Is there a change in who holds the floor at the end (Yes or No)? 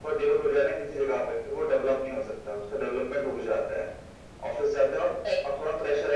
No